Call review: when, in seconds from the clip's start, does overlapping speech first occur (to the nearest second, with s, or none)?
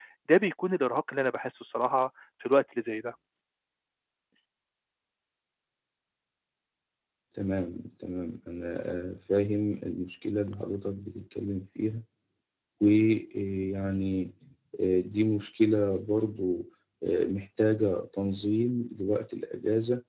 none